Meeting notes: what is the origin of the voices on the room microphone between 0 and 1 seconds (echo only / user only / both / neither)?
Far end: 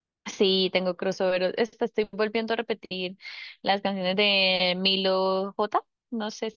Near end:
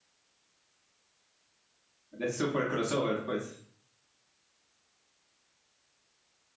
neither